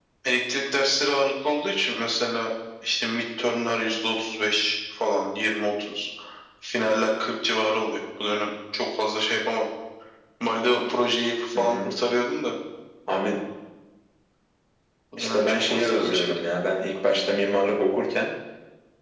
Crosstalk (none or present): present